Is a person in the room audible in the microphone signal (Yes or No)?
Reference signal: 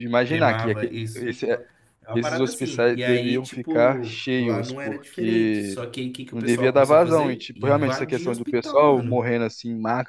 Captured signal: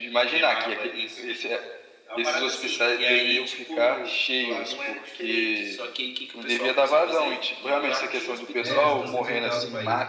Yes